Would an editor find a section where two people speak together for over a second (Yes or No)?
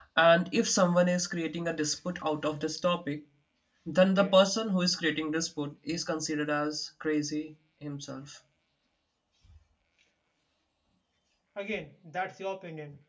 No